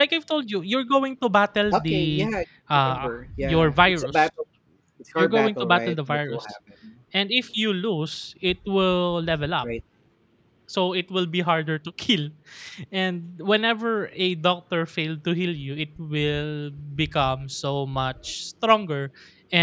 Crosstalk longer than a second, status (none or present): present